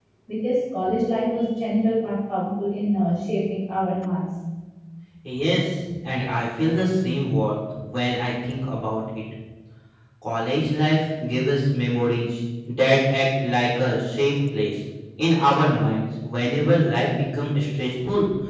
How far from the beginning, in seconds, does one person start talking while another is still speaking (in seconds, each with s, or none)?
none